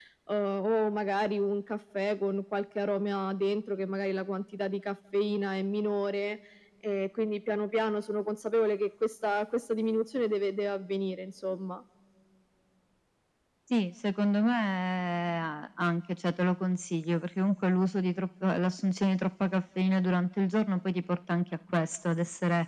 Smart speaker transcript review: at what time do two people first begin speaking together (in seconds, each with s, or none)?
none